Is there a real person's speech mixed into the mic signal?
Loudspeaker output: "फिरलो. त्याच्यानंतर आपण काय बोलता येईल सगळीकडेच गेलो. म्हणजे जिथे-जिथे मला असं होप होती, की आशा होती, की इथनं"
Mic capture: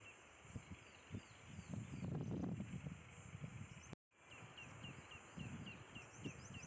No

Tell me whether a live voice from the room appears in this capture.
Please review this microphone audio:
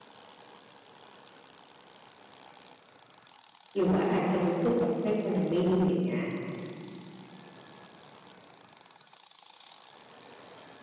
Yes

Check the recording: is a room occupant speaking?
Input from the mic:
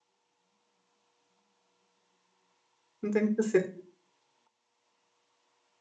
Yes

